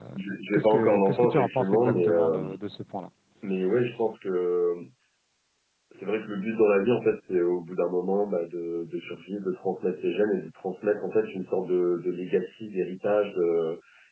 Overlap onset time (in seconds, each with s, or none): 0.5 s